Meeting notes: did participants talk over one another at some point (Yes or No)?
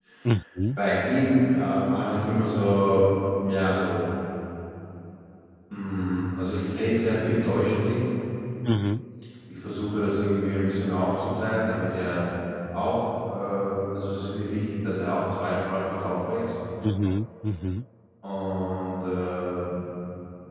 No